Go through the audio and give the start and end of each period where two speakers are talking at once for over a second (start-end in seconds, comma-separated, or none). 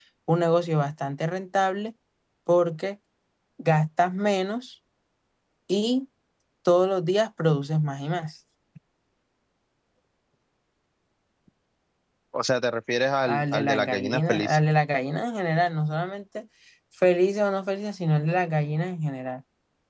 13.2-14.6